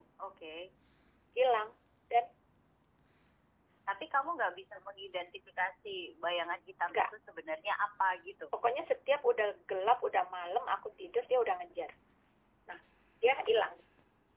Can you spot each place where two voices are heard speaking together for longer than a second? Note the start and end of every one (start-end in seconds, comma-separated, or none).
none